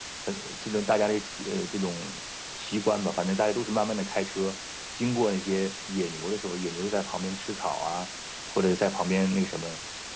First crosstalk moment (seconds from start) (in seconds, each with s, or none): none